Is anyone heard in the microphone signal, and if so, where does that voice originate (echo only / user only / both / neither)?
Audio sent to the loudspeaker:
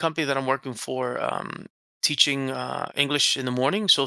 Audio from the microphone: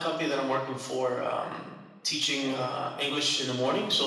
both